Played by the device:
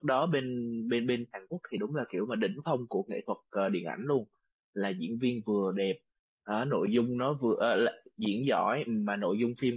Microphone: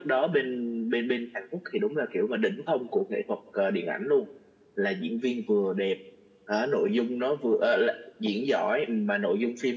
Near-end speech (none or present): none